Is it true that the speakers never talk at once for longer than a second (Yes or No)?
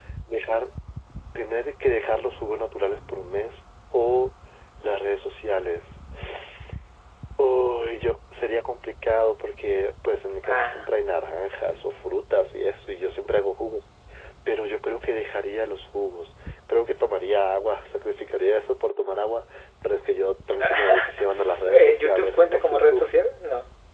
No